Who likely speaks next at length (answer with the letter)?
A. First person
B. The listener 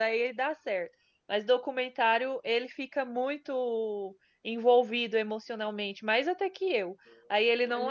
A